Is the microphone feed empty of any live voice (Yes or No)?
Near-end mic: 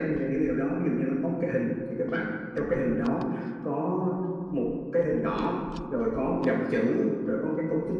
Yes